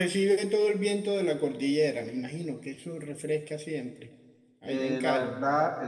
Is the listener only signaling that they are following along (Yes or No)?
No